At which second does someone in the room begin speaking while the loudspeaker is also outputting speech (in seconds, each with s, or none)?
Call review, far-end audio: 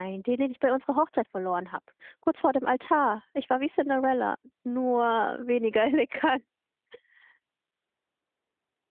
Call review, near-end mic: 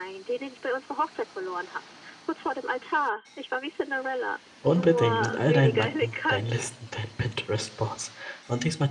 4.6 s